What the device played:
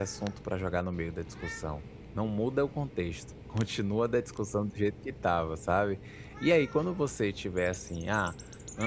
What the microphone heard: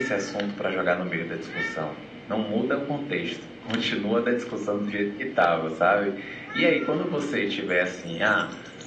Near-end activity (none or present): none